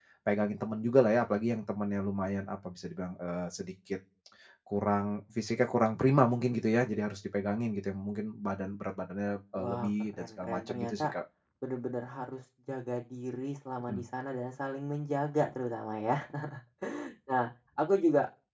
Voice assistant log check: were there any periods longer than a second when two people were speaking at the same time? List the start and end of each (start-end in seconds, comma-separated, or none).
9.6-11.1